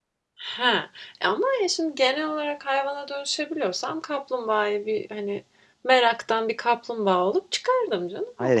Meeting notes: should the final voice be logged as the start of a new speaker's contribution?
Yes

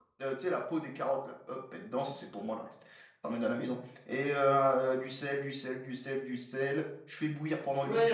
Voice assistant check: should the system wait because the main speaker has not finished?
No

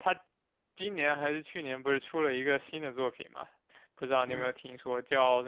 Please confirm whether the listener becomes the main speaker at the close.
No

